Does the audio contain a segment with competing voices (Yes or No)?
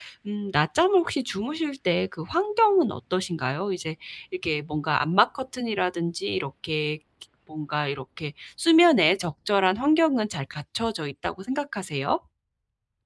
No